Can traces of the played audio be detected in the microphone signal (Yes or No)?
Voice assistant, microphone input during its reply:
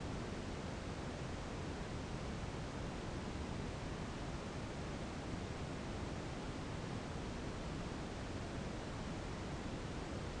No